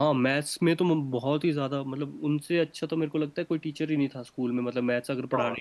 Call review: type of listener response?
taking over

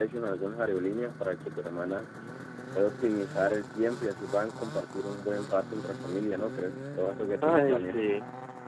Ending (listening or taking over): taking over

